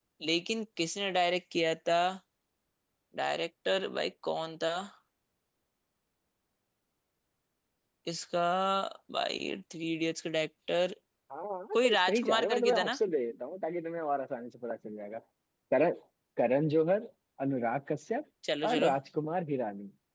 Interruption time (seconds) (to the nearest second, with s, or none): 12 s